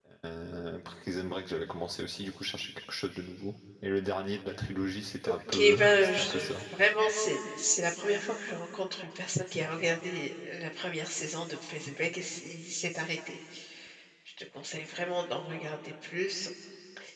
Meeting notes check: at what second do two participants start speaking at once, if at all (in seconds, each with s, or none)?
5.2 s